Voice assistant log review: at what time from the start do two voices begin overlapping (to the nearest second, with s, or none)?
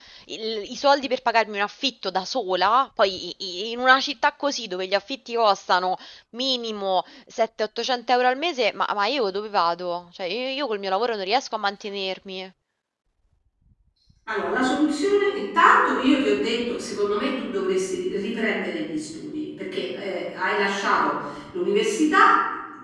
none